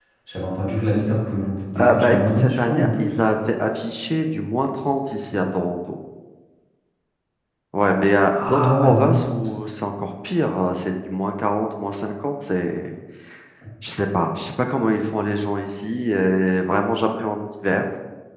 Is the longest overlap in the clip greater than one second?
Yes, from 1.8 s

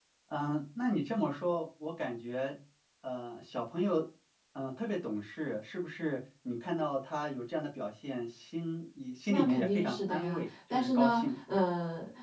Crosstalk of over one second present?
Yes, from 9.3 s

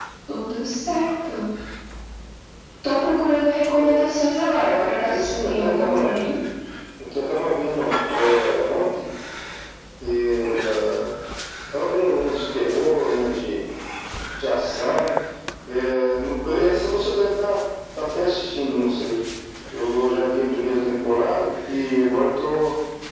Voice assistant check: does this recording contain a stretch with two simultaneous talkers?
Yes, from 4.5 s

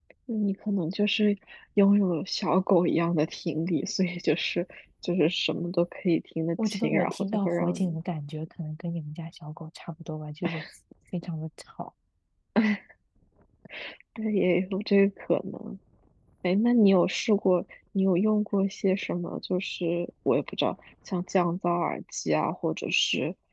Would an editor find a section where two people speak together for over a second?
Yes, from 6.6 s

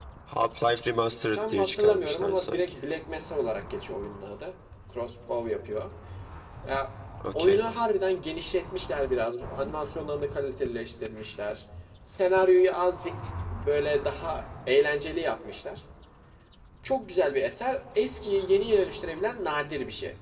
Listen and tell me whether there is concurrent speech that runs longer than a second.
Yes, from 1.3 s

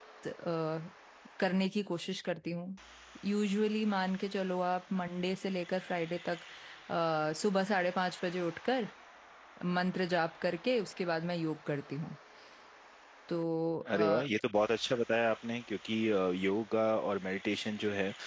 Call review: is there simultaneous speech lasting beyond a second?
No

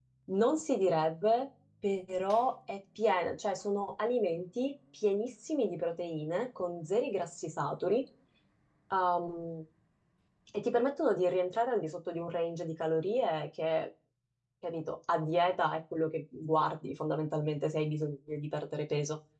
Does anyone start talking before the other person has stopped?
No

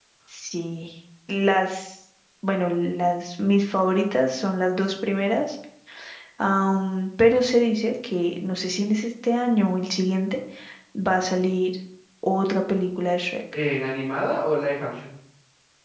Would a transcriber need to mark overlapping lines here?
No

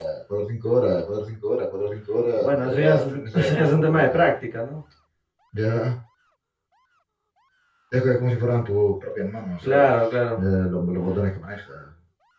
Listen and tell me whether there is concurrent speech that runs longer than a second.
Yes, from 2.4 s

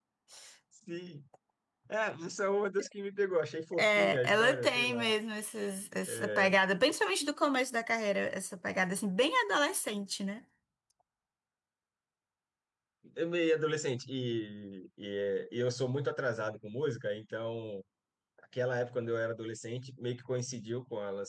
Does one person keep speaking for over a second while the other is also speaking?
Yes, from 3.8 s

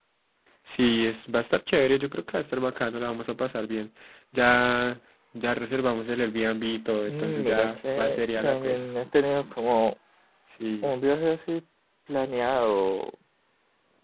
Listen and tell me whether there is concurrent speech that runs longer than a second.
Yes, from 7.1 s

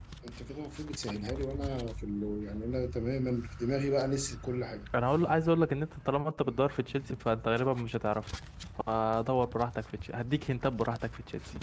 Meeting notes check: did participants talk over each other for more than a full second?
No

